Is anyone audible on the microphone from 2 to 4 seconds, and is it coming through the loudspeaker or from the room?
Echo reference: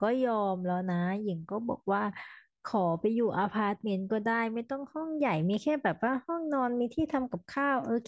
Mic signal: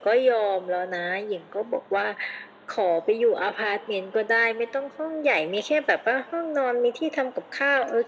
echo only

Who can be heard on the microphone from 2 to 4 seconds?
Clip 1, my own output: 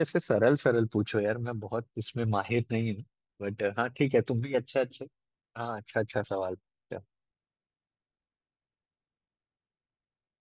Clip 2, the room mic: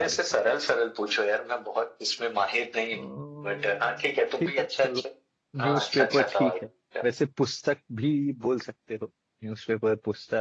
both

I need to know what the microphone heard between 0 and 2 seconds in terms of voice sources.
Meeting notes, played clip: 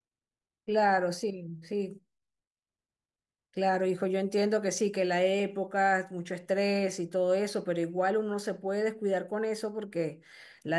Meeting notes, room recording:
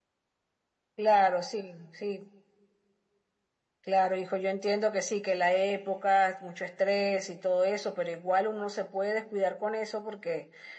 echo only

